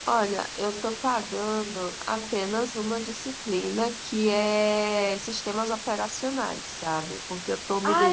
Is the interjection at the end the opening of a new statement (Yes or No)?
Yes